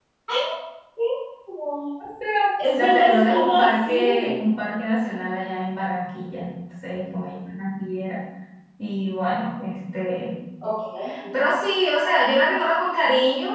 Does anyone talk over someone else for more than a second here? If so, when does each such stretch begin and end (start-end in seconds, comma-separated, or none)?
2.8-4.4